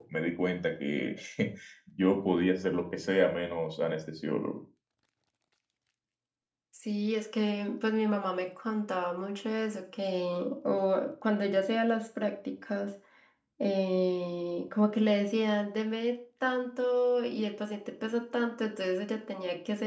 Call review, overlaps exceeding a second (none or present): none